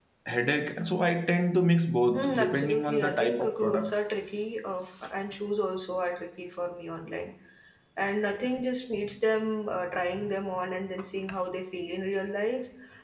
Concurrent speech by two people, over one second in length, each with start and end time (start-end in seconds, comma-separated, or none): 2.1-3.9